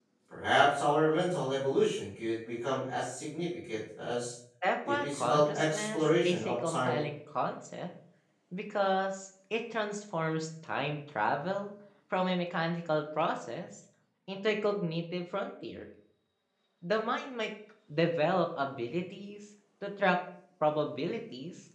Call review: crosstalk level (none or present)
present